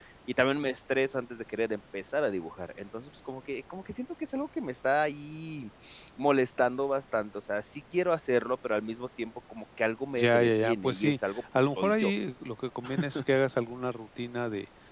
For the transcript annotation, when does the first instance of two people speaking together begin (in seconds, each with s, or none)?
10.2 s